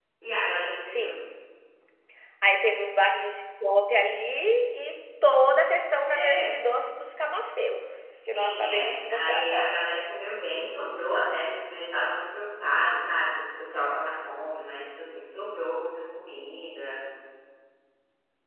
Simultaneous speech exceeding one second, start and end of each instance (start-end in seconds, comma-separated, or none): 8.1-9.8